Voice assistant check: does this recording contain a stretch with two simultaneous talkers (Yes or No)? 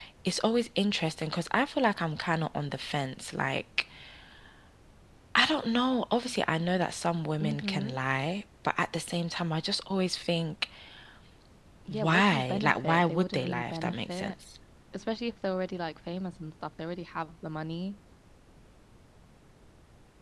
Yes